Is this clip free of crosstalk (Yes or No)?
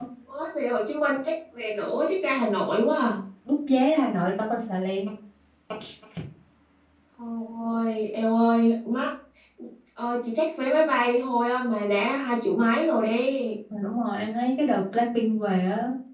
Yes